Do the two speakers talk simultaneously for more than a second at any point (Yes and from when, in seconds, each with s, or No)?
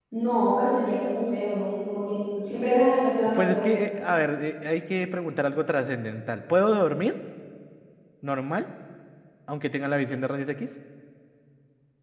No